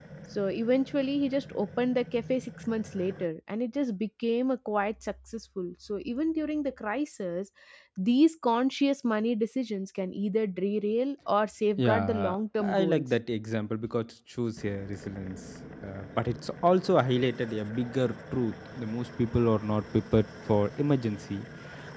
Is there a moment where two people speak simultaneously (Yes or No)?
Yes